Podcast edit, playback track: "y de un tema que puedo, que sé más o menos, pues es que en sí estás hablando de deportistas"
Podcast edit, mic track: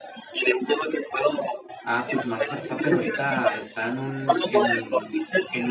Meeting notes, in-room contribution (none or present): present